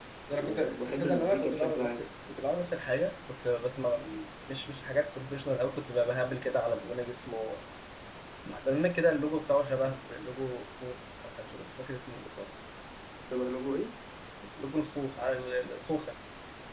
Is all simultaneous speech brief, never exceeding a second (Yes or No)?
No